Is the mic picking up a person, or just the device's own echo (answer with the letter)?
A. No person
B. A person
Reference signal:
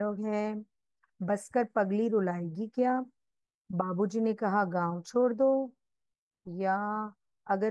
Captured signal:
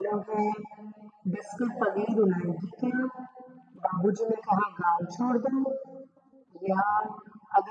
A